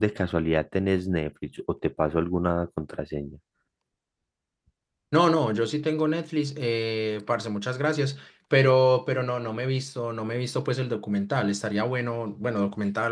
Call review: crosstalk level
none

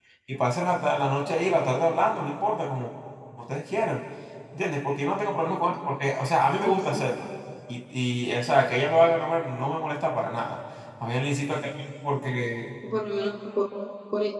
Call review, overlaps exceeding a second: none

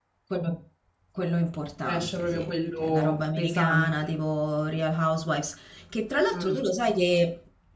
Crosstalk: present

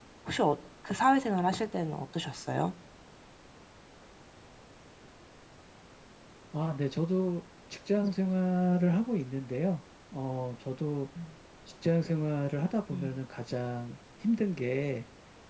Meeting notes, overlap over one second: none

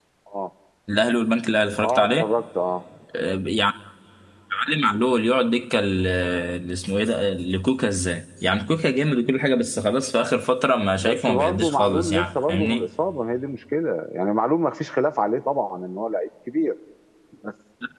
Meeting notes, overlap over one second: present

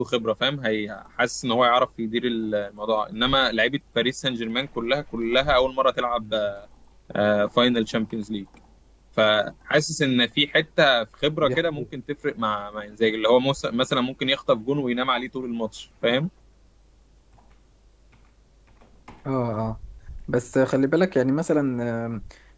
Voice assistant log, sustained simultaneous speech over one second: none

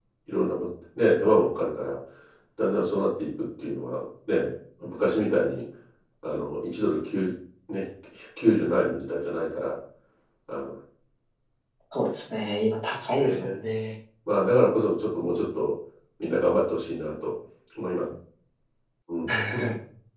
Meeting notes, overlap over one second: none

